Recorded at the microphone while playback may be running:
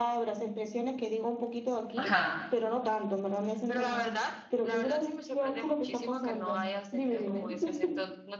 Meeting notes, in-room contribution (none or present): present